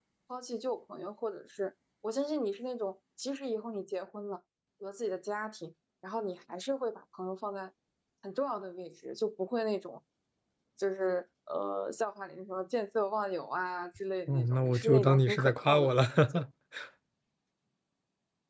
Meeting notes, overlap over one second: present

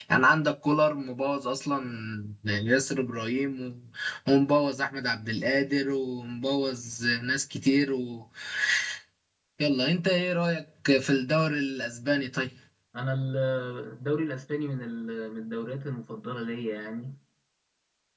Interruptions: none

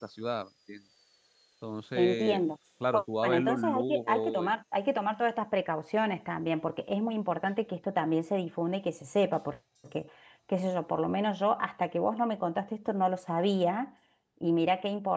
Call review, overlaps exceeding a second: present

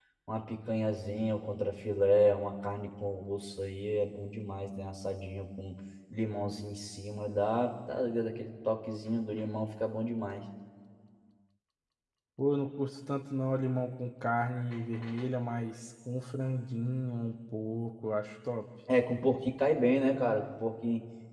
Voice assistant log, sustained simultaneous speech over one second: none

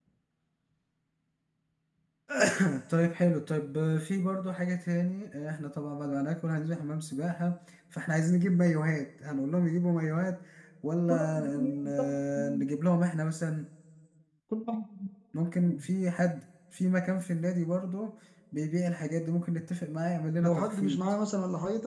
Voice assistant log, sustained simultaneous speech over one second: present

